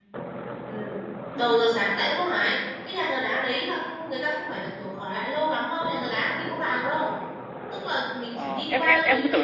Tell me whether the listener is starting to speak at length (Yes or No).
Yes